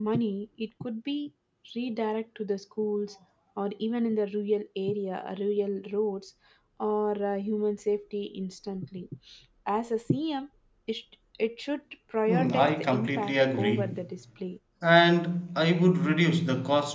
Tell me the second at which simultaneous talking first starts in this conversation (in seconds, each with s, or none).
12.3 s